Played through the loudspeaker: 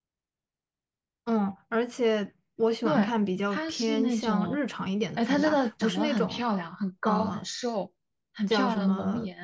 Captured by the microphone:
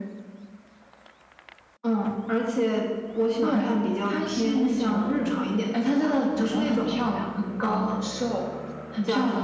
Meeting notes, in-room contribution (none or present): none